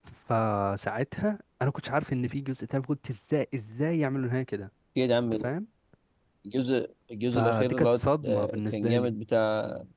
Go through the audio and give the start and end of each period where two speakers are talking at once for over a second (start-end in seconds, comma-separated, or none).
7.3-9.1